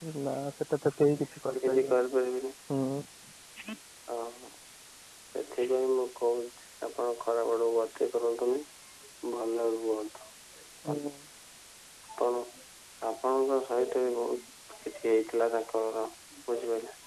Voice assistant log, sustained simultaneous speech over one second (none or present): none